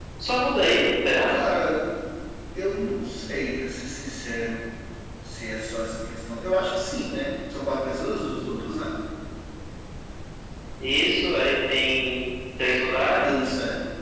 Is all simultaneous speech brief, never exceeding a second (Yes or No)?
Yes